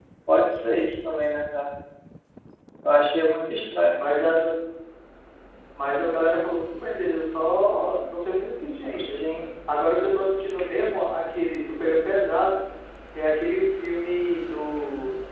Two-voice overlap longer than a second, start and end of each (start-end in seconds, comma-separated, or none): none